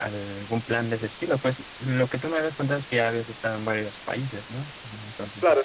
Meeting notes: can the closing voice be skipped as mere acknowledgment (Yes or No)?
No